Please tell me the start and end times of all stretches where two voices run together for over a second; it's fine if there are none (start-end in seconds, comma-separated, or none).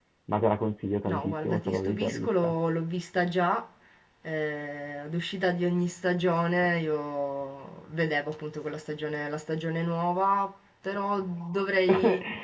1.1-2.5